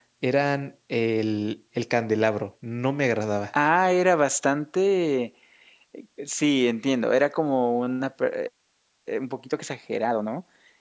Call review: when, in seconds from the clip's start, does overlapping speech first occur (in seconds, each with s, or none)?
none